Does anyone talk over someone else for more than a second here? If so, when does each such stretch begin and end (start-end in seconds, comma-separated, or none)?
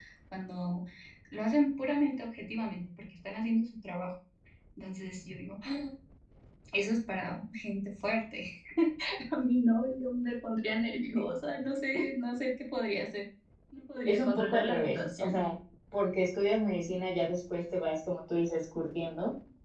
14.1-15.4